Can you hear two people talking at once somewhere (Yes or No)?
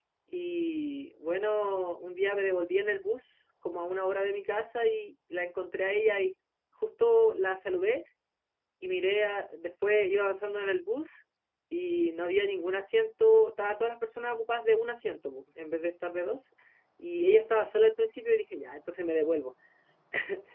No